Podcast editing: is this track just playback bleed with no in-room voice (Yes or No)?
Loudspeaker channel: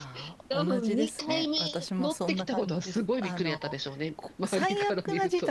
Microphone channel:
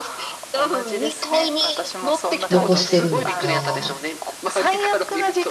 No